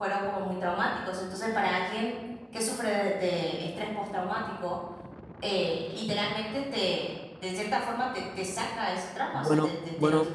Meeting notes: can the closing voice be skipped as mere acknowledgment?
No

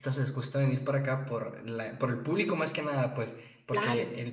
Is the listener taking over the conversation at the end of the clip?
No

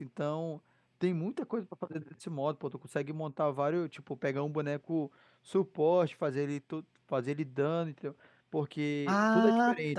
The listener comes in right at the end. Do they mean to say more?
Yes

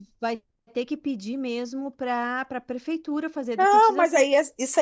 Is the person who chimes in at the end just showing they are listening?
No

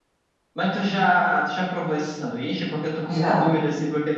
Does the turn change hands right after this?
No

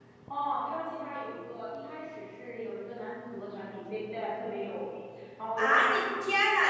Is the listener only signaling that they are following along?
No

